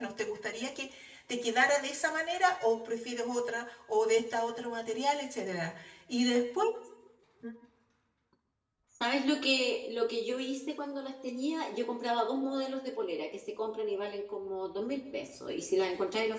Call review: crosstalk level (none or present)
none